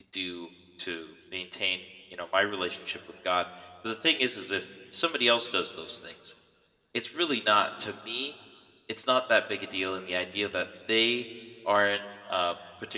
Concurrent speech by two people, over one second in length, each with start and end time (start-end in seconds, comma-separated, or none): none